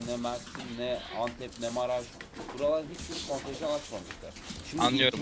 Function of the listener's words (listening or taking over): taking over